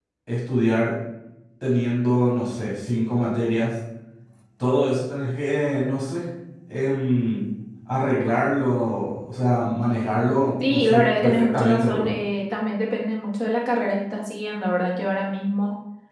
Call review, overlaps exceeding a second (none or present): present